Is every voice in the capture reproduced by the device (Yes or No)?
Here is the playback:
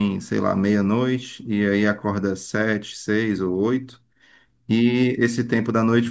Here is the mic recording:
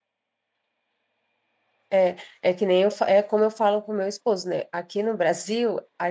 No